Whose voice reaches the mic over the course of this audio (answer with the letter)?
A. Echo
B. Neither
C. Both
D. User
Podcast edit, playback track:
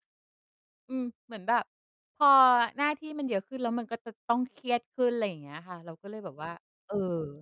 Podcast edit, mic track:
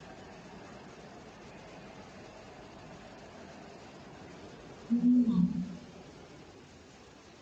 D